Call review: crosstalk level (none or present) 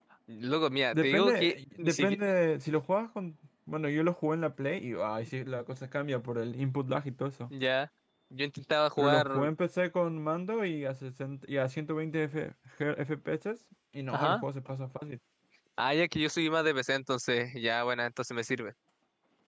present